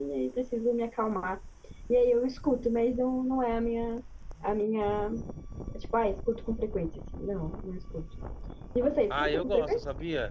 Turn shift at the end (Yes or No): Yes